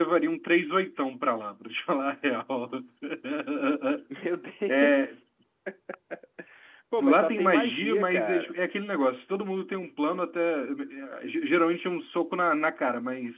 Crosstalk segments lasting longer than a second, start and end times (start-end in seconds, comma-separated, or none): 7.0-8.5